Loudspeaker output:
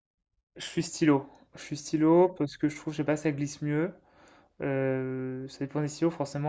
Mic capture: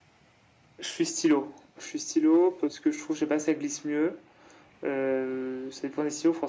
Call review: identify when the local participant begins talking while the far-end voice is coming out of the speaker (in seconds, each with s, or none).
none